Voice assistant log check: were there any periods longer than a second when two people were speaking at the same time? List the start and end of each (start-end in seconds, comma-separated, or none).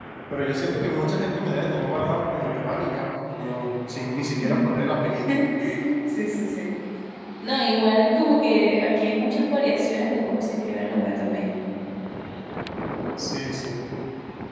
none